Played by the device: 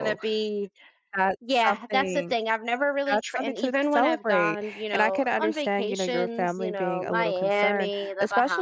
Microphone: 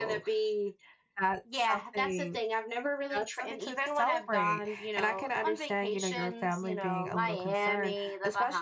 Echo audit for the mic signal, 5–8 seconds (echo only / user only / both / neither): echo only